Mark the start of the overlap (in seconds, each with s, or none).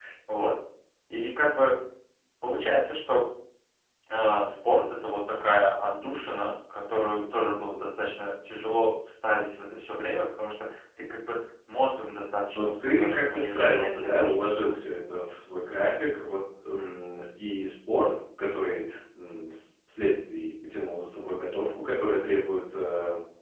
12.6 s